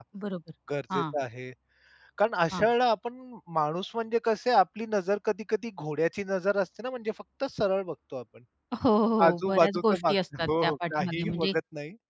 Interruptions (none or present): present